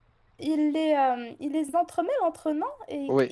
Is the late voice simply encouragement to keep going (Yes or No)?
Yes